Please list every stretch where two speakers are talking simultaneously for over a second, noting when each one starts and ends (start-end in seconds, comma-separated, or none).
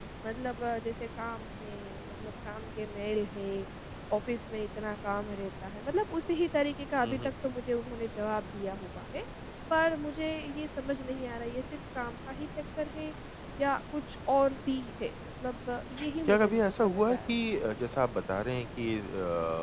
16.3-17.5